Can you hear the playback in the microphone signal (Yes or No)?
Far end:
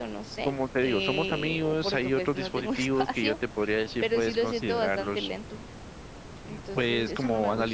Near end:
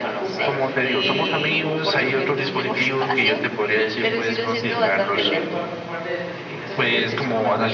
Yes